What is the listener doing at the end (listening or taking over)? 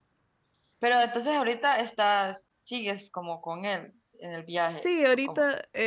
taking over